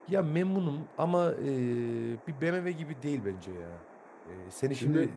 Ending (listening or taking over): listening